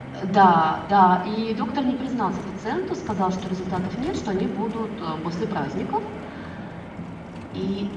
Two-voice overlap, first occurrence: none

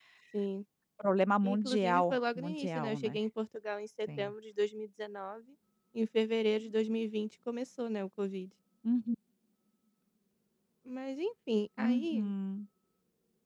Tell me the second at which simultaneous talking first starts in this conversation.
1.4 s

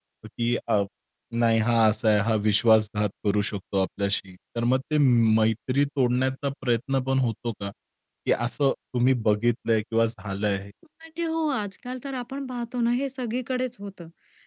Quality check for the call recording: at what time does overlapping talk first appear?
none

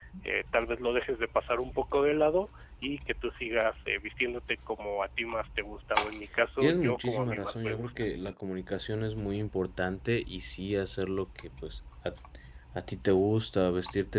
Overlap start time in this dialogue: 6.6 s

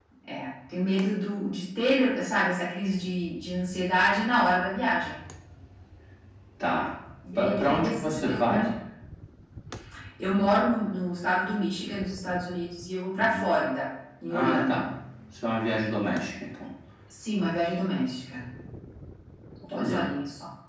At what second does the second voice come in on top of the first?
7.4 s

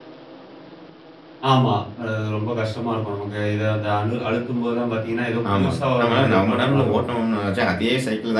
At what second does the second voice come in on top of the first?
5.5 s

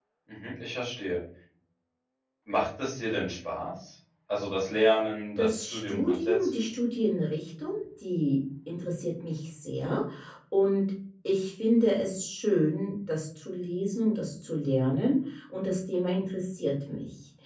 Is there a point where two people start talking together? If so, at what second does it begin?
5.4 s

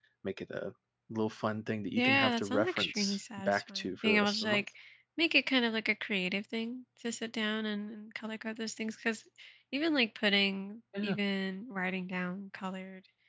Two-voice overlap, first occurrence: 2.0 s

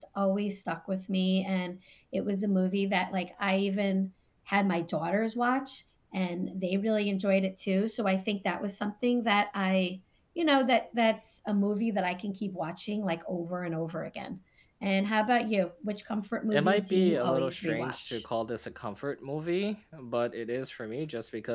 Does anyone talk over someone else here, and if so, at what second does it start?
16.5 s

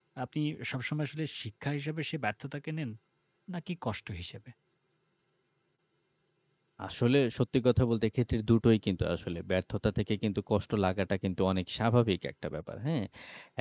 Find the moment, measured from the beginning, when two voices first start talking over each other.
none

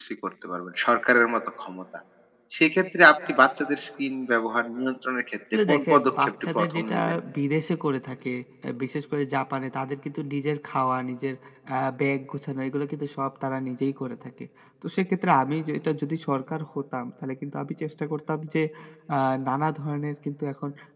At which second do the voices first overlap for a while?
5.5 s

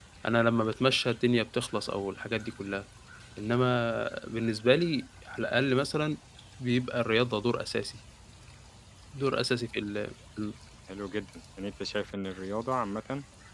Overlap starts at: none

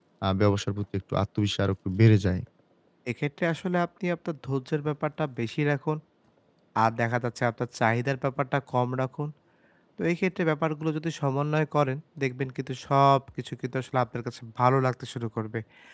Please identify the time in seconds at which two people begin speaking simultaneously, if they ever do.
none

